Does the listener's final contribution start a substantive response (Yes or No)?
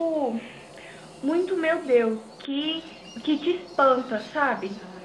Yes